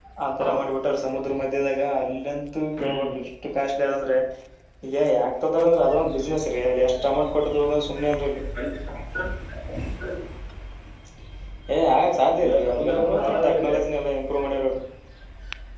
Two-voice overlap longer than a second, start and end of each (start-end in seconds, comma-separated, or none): 12.4-13.7